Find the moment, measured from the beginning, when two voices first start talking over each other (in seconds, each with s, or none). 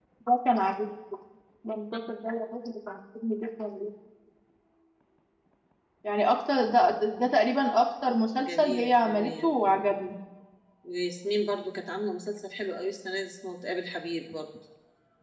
8.4 s